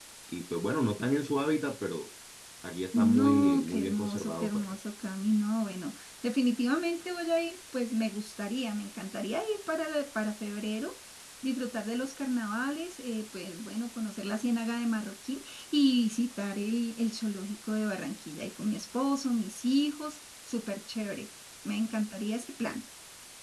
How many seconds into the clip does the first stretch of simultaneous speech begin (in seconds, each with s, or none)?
3.0 s